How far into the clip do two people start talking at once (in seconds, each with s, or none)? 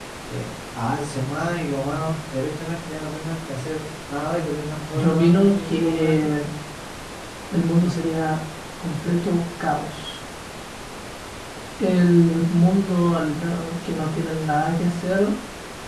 4.9 s